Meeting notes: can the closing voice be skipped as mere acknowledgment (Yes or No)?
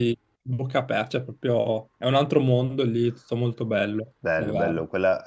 No